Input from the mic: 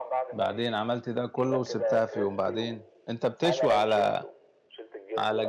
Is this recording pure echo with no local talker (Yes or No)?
No